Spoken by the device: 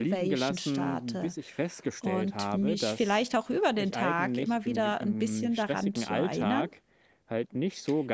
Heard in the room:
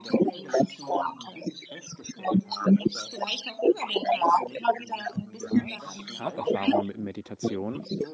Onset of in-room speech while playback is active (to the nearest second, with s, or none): 5 s